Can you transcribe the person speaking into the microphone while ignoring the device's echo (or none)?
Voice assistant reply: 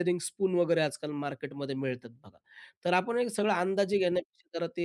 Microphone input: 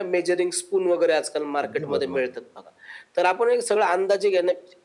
अगदी बरोबर,